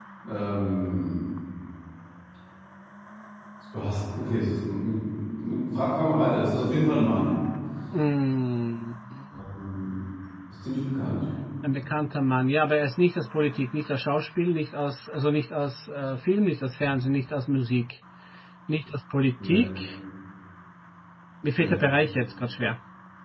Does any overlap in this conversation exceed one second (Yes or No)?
No